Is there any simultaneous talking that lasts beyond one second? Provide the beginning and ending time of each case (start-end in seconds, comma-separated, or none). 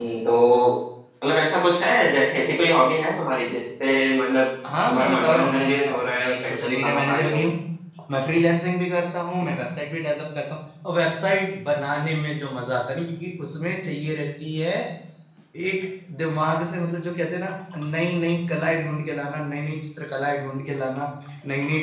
4.9-7.4